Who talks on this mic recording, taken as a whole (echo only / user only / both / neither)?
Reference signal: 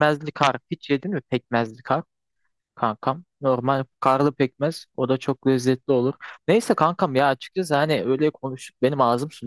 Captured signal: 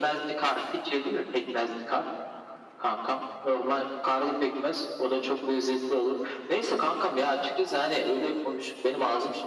echo only